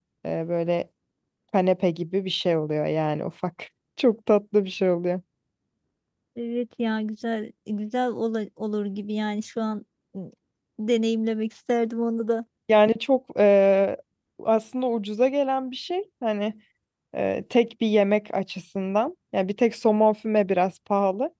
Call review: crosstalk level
none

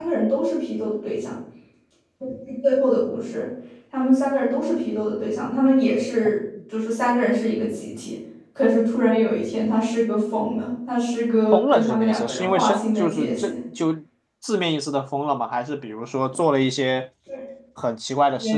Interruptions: present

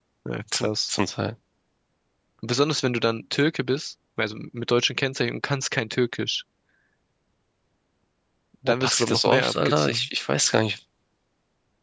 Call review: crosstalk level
present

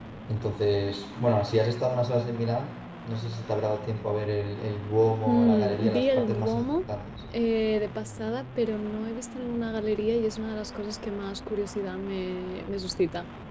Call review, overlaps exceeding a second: present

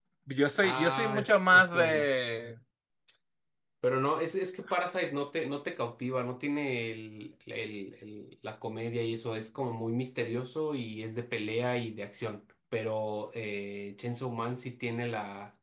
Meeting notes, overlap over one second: present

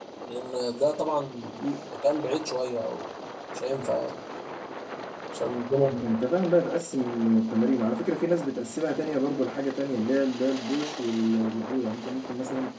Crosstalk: none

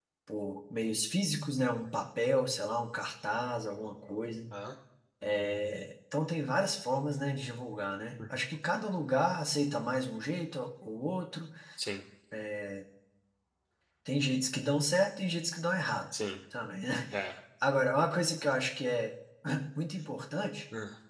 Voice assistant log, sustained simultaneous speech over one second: none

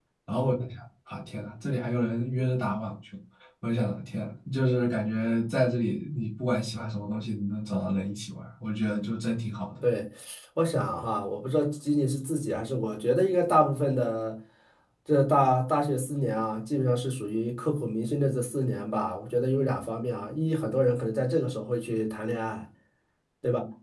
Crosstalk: none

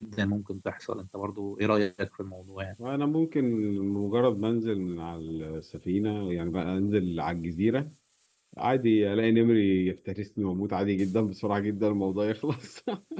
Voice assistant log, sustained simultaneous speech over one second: none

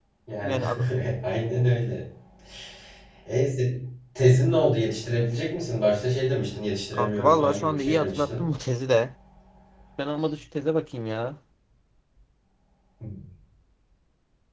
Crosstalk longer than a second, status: present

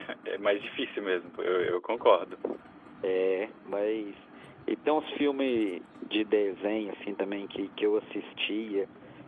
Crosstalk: none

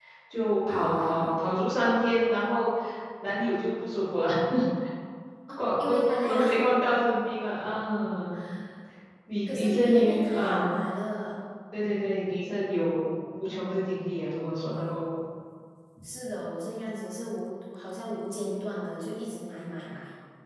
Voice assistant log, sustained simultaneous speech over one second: present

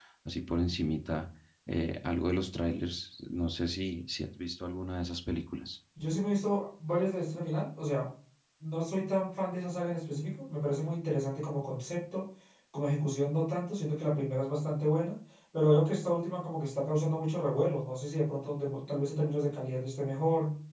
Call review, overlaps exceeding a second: none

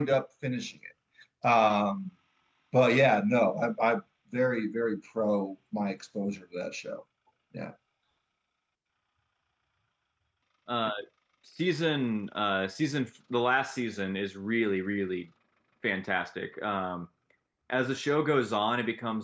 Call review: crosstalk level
none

